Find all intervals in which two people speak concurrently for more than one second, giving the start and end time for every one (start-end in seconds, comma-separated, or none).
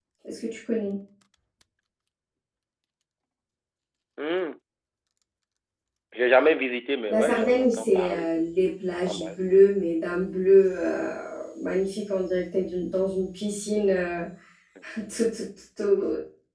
7.1-8.3